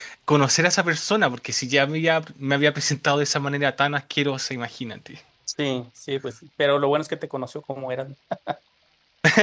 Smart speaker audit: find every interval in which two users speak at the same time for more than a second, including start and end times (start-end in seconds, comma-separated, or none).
none